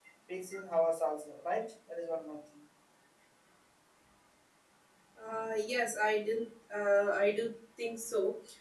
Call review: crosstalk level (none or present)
none